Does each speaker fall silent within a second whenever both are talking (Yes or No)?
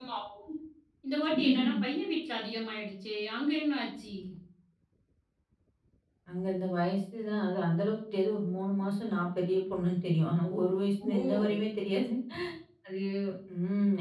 Yes